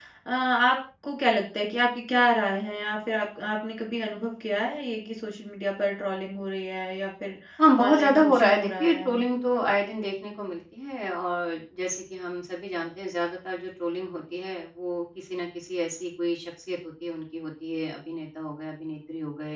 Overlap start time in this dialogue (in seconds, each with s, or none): 7.9 s